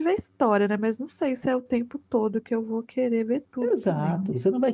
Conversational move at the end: taking over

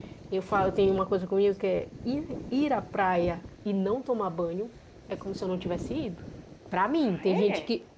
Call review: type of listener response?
listening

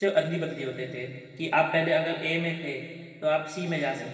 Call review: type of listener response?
listening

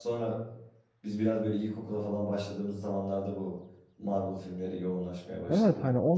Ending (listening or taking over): taking over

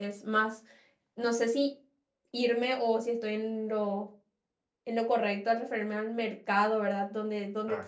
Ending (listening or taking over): listening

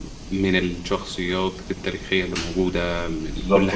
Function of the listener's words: taking over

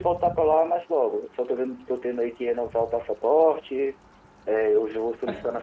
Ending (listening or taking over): listening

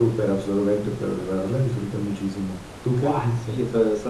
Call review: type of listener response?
taking over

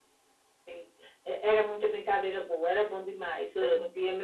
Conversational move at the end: listening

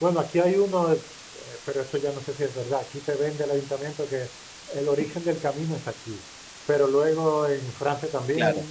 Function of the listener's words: listening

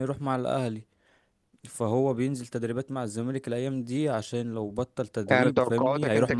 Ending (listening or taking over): taking over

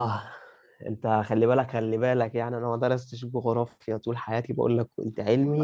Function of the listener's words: taking over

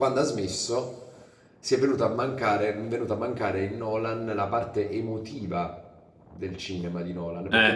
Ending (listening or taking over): taking over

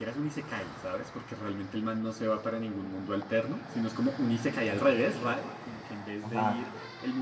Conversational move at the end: listening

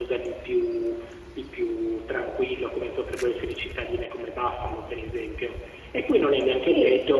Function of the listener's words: listening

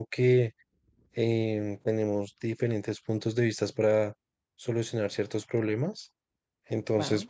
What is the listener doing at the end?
listening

